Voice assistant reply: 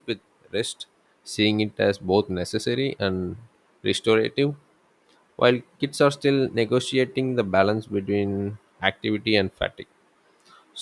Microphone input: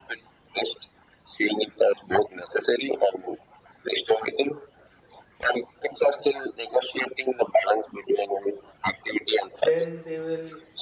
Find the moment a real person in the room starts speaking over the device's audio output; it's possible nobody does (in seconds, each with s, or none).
9.7 s